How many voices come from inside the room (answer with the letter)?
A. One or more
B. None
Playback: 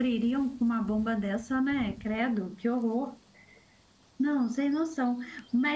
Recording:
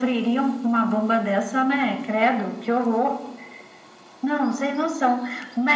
B